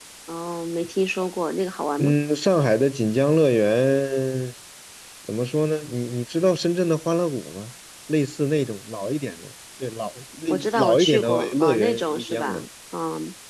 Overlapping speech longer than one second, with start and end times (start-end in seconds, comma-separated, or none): 10.5-12.6